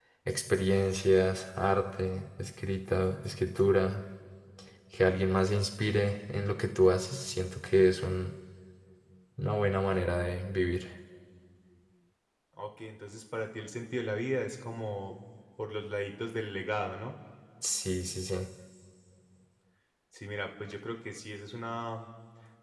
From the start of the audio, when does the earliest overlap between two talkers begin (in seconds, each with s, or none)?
none